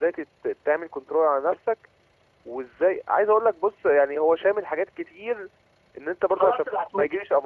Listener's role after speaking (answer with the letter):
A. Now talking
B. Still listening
B